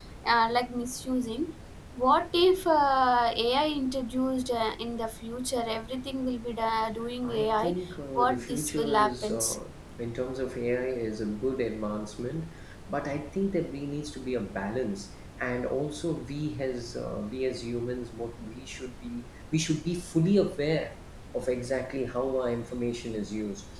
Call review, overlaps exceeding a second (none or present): present